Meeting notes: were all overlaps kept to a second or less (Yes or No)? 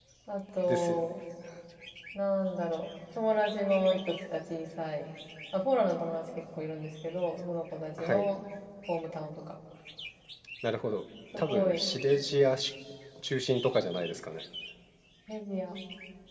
Yes